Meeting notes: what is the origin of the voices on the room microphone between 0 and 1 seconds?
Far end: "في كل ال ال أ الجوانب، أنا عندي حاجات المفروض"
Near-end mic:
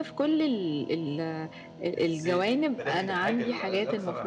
echo only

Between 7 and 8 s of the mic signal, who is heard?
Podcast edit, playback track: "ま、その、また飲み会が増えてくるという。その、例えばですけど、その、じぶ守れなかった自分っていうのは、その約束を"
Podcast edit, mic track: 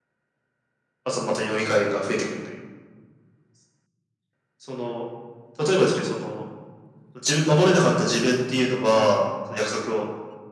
echo only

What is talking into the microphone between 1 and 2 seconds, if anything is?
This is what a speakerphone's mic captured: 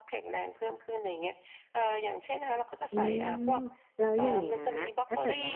echo only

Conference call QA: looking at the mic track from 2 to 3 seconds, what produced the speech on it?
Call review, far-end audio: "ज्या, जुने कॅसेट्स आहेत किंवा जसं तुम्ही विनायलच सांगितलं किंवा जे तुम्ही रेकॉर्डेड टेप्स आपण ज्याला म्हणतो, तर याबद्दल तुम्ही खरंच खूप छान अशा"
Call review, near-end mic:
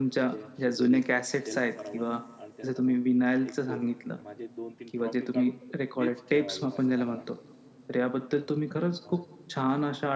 both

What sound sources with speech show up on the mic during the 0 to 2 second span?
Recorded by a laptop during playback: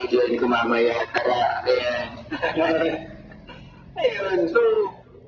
echo only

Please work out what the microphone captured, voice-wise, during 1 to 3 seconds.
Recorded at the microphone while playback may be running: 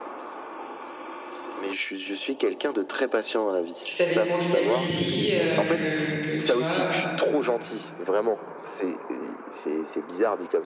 echo only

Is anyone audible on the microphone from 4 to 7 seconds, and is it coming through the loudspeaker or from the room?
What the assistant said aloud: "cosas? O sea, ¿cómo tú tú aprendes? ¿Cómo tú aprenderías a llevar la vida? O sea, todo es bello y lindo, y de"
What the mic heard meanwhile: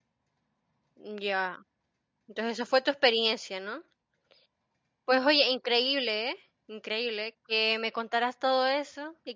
user only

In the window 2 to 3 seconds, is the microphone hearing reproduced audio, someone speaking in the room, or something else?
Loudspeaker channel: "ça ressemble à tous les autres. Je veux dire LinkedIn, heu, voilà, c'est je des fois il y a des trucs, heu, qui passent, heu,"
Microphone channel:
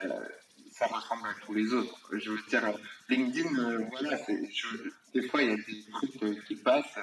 echo only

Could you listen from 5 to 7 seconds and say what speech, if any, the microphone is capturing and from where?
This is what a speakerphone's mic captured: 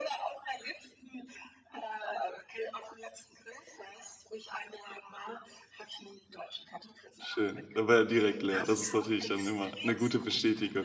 echo only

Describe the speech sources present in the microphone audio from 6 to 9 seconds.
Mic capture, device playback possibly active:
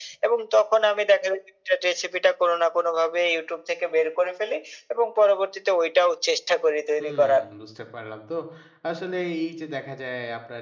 both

